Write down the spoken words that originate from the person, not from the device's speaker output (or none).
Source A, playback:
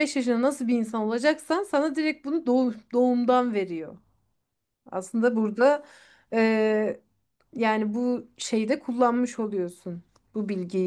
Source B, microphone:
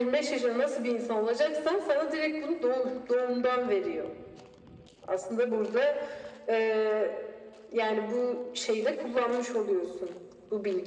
none